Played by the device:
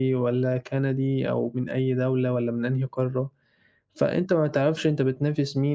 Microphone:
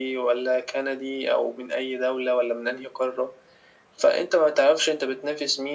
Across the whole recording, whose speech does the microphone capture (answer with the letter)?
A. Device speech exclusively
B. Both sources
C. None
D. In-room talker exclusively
A